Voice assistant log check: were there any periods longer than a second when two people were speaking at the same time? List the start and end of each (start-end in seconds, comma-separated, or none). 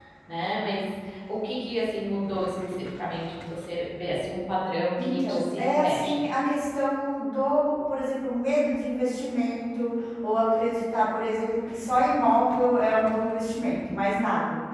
5.0-6.2